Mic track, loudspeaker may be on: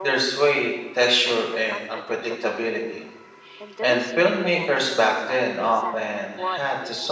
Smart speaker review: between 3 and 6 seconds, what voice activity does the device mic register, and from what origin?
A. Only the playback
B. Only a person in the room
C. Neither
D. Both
D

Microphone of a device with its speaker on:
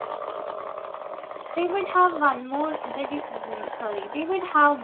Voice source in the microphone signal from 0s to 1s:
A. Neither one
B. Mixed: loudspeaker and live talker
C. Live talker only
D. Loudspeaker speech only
A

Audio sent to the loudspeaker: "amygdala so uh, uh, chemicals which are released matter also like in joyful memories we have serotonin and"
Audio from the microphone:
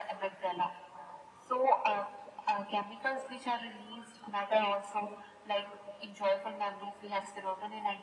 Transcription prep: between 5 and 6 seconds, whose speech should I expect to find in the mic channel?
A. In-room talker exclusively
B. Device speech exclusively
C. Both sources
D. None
B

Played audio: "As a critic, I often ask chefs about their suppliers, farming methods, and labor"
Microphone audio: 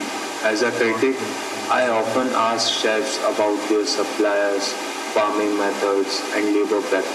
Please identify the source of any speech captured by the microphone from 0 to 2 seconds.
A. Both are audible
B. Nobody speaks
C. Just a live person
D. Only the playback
A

